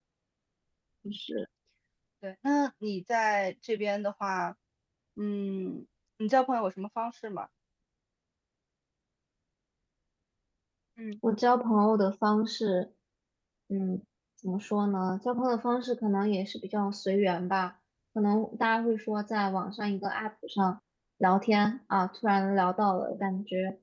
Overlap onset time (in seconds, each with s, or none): none